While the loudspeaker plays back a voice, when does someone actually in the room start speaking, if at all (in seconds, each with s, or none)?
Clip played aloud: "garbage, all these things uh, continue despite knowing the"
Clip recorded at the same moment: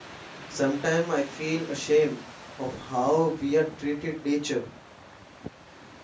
0.5 s